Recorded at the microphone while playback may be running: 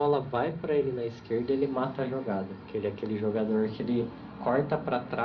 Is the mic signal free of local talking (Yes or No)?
Yes